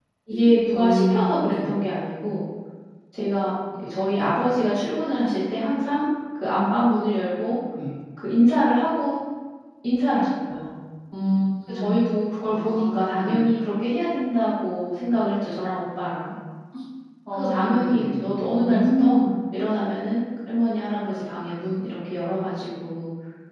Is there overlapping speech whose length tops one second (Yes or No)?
Yes